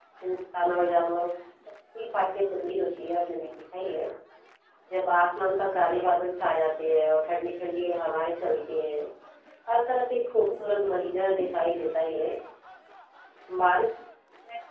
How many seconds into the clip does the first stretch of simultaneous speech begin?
10.3 s

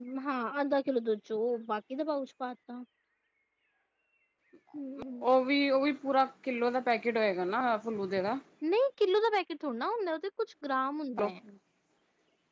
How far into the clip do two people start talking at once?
none

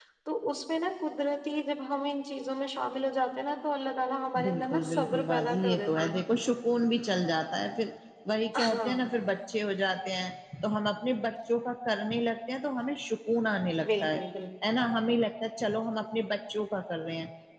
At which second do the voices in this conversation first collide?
4.4 s

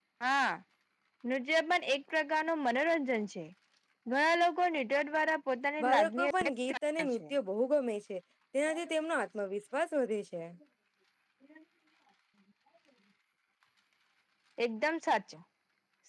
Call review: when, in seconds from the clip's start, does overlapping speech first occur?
5.8 s

